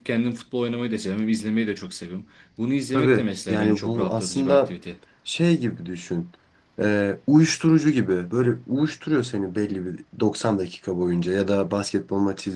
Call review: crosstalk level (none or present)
present